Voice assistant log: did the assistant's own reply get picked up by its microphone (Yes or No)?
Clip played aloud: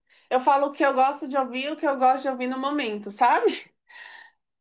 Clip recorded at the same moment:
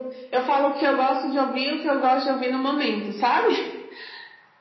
Yes